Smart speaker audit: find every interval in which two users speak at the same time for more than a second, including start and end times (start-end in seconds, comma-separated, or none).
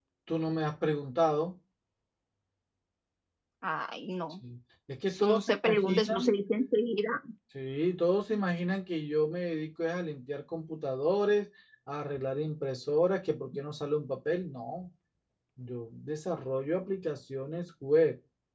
5.1-6.4